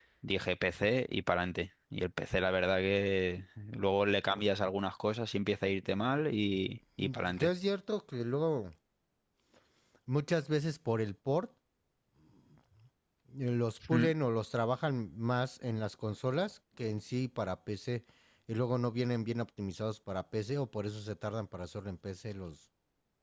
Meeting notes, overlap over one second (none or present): none